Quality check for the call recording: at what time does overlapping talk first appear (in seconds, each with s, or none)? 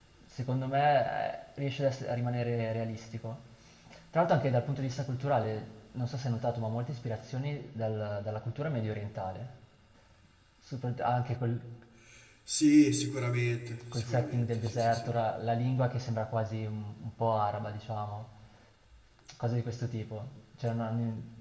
13.9 s